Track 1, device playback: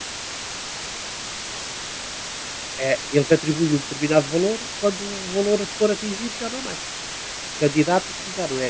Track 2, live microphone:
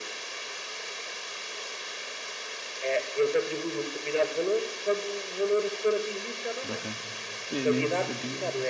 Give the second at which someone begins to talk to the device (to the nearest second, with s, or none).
7 s